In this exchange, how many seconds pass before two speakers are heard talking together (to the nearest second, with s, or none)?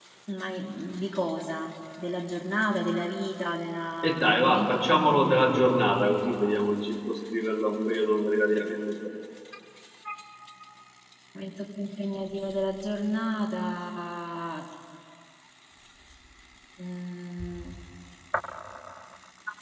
4 s